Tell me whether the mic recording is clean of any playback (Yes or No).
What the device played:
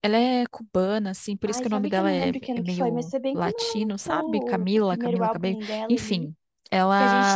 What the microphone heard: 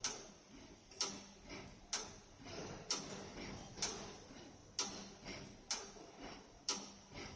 Yes